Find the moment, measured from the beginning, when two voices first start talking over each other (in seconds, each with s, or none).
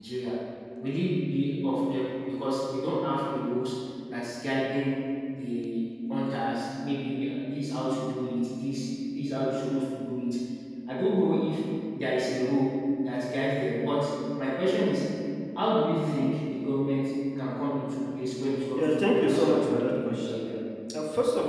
18.8 s